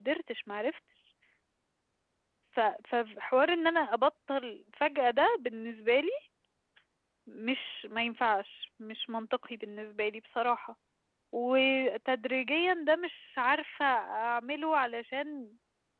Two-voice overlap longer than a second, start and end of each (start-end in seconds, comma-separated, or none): none